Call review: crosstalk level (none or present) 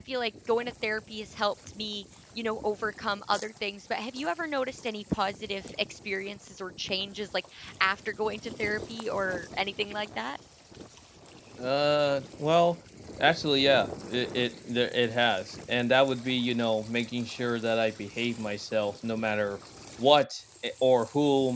none